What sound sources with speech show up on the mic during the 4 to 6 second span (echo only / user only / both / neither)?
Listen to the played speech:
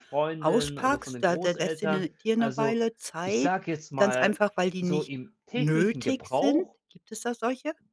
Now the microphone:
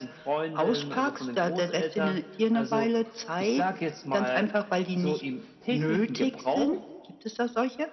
echo only